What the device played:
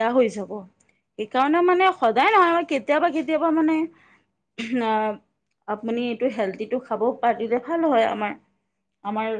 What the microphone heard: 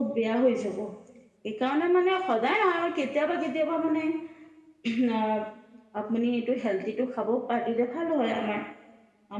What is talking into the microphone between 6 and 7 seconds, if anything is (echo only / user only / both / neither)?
echo only